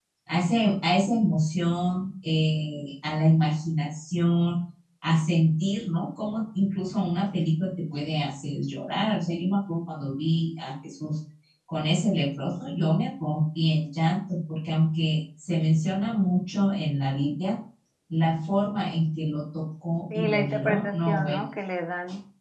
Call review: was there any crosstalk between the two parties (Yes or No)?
Yes